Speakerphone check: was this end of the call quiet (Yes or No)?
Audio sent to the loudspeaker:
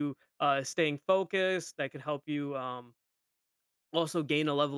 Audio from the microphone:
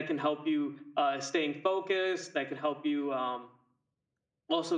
Yes